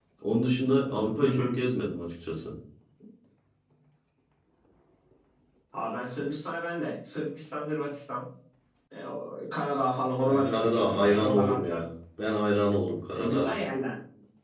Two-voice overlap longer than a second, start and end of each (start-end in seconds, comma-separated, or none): 10.3-11.8